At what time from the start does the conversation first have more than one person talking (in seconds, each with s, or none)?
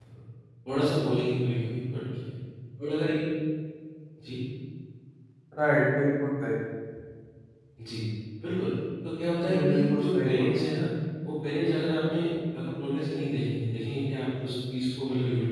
9.4 s